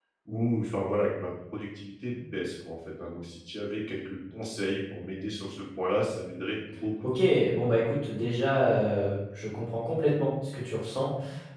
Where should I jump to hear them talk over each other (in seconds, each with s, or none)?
none